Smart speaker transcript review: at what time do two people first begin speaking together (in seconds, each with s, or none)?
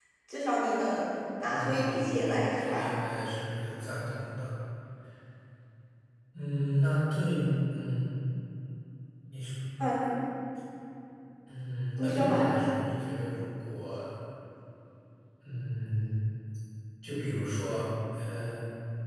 1.5 s